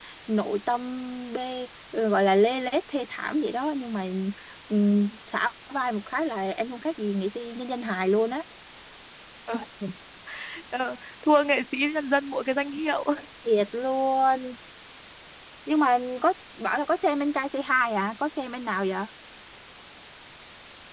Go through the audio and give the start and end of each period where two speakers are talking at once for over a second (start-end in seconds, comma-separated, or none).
none